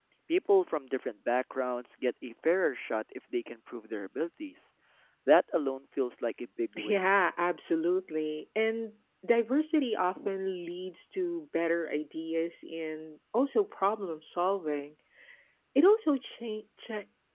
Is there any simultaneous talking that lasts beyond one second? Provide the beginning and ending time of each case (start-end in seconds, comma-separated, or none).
none